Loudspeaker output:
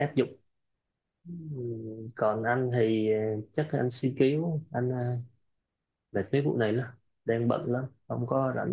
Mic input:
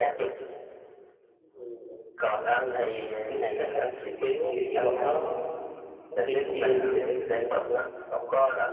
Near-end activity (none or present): present